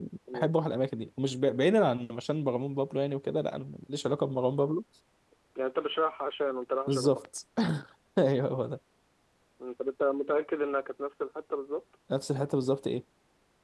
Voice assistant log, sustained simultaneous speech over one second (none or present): none